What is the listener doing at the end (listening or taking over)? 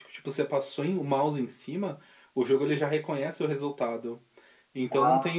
listening